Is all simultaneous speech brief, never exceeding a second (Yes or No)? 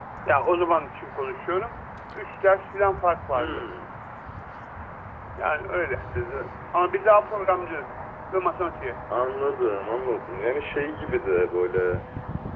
Yes